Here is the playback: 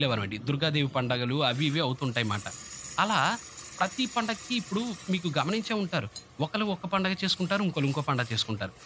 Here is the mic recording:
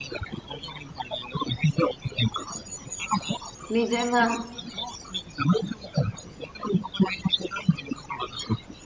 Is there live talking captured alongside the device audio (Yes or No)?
Yes